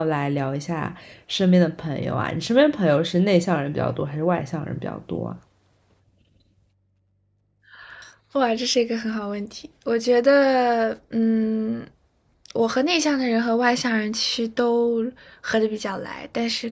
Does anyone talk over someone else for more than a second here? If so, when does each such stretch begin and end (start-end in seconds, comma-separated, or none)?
none